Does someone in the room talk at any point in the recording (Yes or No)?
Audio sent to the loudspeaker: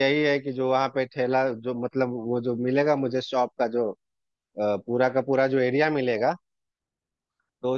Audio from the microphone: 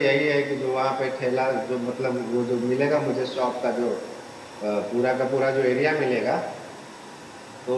No